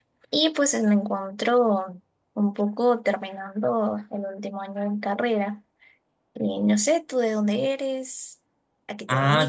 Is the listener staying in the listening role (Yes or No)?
No